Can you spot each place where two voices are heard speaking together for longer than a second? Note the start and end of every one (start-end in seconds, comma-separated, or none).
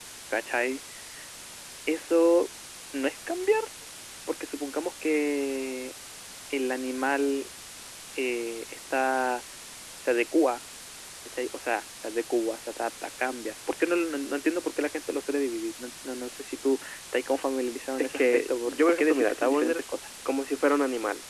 18.0-19.8